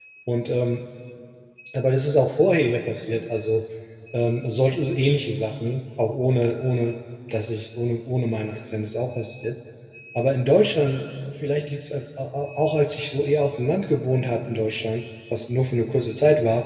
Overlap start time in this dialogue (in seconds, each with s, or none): none